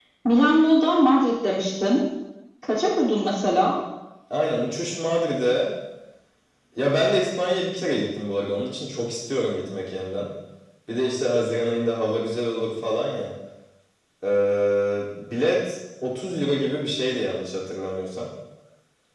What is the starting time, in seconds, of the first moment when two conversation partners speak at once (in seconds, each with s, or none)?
none